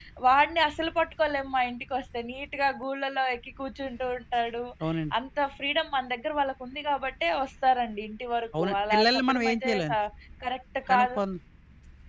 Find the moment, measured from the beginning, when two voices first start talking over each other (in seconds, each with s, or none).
8.6 s